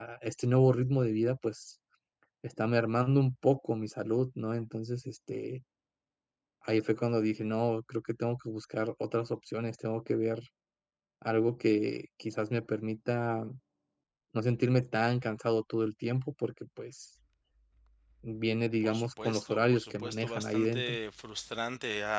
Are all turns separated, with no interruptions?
No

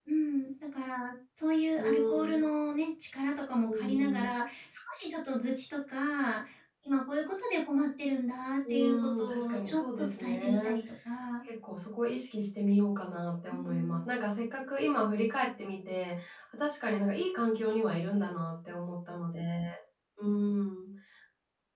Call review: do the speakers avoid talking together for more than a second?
No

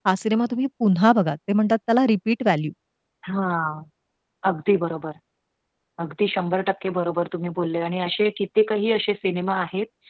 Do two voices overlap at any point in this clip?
No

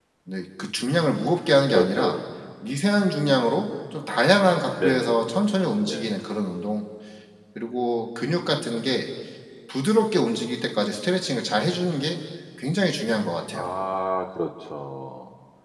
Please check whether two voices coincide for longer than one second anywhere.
No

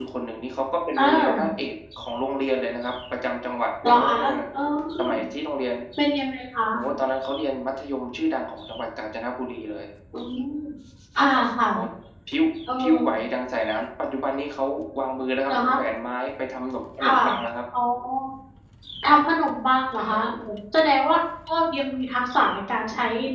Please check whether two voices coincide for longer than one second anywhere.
No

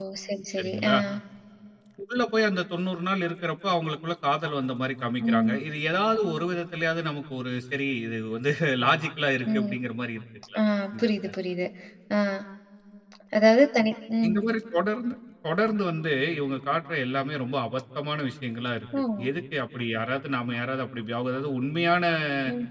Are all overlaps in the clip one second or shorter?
Yes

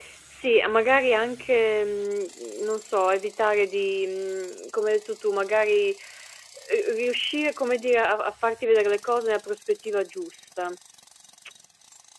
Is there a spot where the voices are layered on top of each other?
No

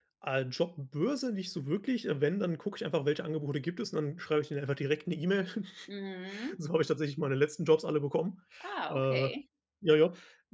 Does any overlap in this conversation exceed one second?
No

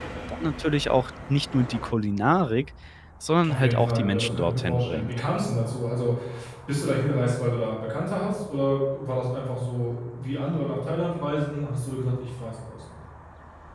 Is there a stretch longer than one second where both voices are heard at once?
Yes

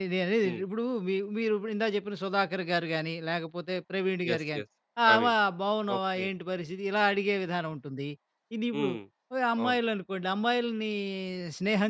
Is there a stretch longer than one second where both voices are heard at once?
No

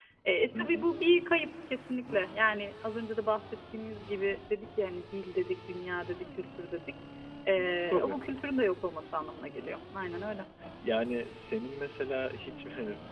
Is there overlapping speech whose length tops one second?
No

